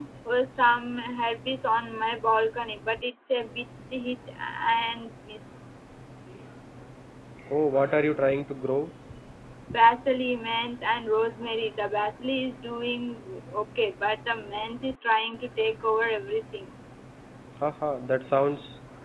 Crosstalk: none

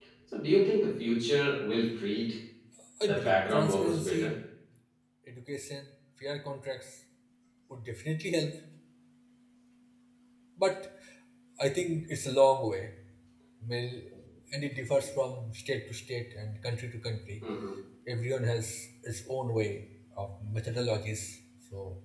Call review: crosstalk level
present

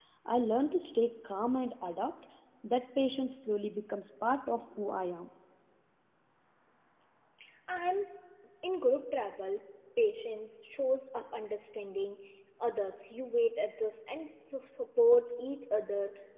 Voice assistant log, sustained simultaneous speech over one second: none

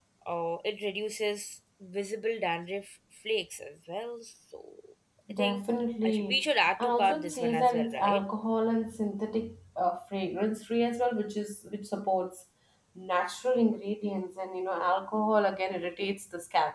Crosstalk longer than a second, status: present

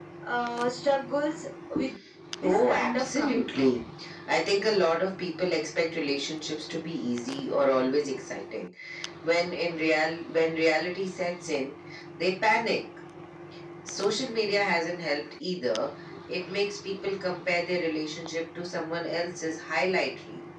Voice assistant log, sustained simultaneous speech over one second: present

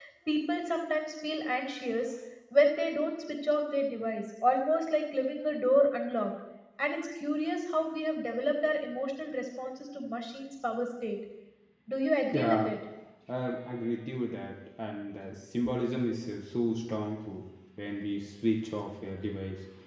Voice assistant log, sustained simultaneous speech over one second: none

